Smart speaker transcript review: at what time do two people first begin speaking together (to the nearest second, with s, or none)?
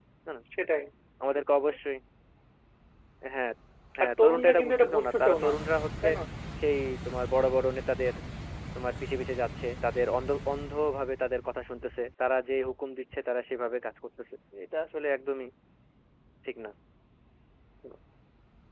4 s